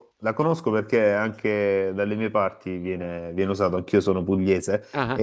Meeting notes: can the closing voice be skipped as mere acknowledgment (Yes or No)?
Yes